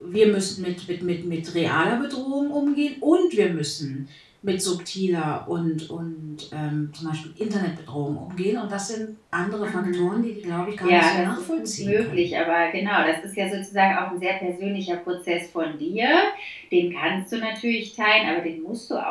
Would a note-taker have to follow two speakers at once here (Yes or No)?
Yes